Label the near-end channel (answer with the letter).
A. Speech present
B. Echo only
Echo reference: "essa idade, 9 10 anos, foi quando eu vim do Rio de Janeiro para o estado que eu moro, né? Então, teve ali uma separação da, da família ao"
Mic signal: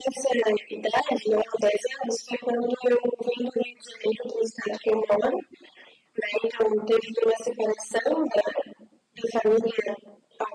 B